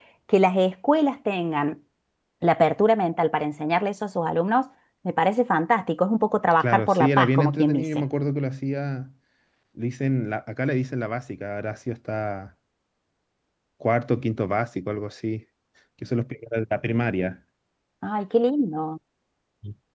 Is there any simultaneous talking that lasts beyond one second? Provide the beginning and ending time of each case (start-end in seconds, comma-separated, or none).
6.6-8.0